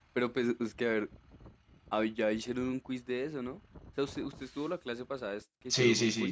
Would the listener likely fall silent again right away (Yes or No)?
No